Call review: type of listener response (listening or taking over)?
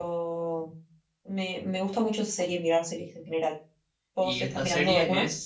taking over